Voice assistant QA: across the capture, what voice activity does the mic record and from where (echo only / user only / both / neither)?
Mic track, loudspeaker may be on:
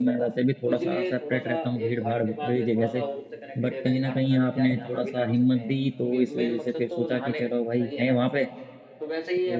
both